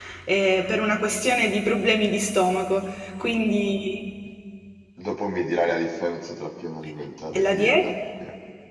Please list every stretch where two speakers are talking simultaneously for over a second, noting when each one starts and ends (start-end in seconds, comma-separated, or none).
none